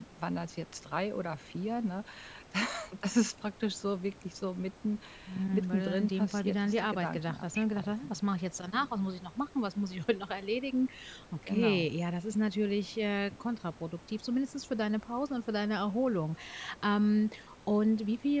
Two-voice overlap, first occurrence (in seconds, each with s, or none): 5.5 s